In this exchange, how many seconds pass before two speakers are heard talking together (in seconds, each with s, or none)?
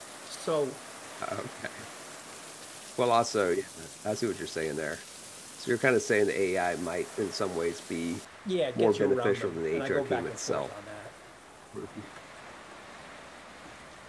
8.8 s